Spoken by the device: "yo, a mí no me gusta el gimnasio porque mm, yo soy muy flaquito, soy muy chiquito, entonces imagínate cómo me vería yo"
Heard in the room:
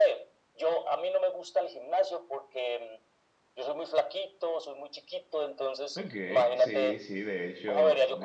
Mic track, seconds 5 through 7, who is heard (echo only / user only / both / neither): both